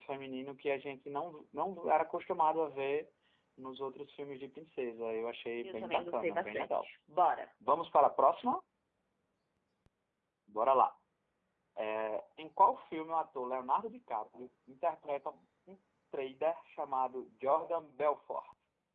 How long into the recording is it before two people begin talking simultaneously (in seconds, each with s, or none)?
5.6 s